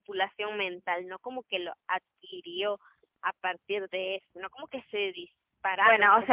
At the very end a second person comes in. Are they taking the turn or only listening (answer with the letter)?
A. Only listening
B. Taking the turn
B